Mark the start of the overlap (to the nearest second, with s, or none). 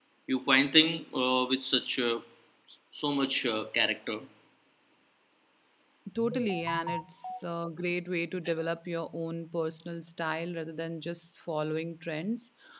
none